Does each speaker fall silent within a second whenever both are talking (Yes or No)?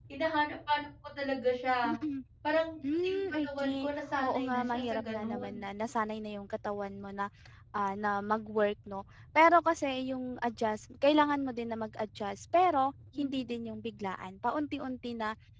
No